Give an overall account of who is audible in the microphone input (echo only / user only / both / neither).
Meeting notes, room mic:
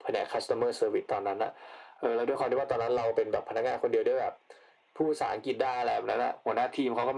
echo only